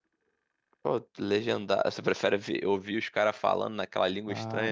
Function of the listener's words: taking over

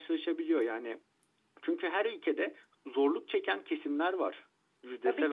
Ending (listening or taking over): taking over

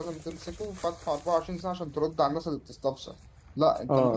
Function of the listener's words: listening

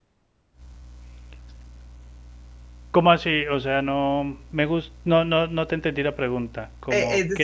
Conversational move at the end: taking over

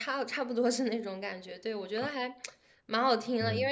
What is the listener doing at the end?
listening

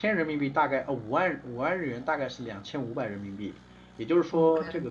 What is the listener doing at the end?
listening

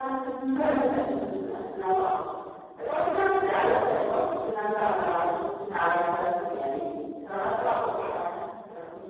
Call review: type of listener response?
listening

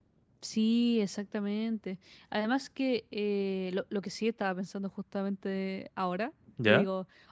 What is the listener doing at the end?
listening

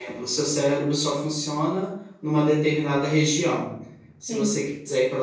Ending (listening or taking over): listening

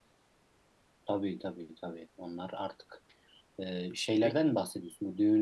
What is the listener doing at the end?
listening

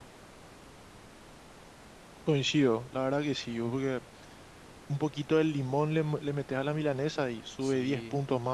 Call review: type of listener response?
taking over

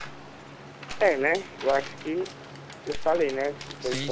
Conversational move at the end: taking over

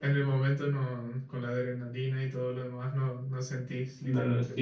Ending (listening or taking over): taking over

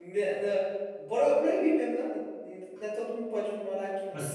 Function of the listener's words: taking over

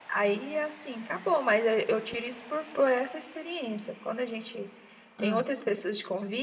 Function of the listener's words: listening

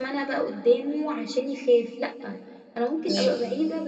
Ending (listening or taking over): listening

